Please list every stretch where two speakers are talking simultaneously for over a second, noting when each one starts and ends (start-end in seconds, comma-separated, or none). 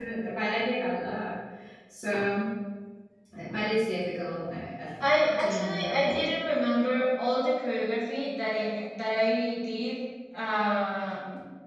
5.0-6.3